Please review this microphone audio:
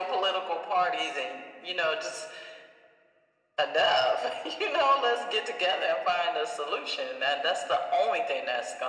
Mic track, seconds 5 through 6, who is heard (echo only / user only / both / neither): echo only